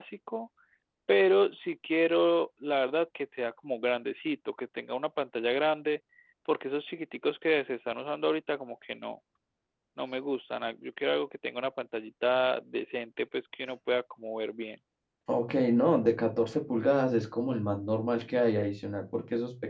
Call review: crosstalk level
none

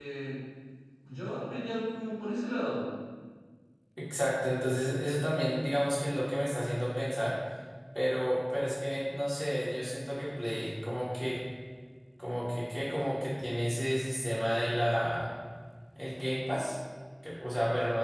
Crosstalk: none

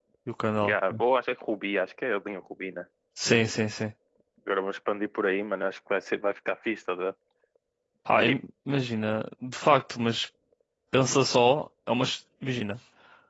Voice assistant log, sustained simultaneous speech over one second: none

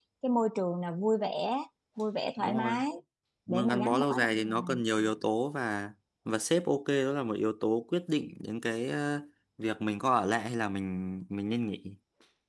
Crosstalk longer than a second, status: present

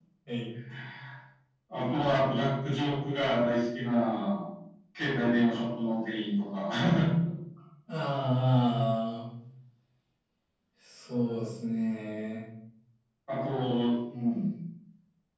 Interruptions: none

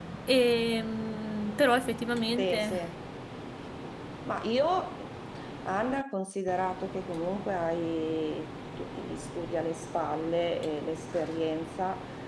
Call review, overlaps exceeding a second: none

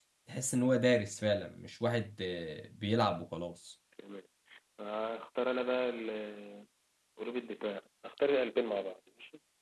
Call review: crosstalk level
none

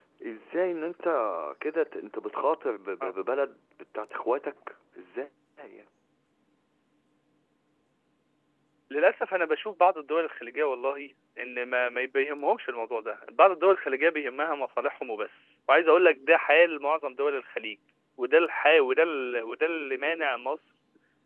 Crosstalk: none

